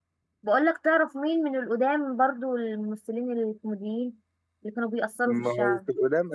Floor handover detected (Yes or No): Yes